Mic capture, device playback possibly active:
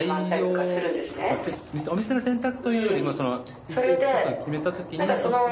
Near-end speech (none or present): present